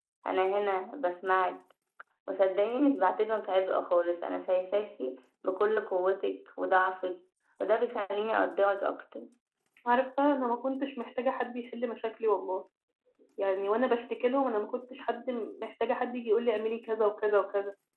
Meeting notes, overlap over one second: none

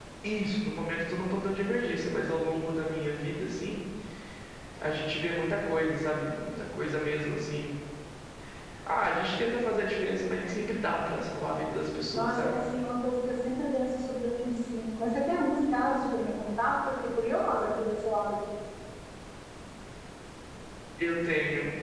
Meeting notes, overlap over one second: none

